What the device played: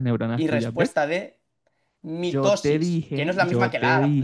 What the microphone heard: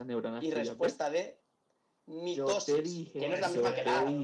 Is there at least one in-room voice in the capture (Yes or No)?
Yes